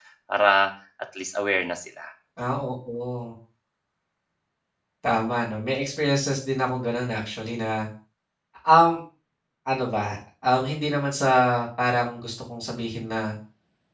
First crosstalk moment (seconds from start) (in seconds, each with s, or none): none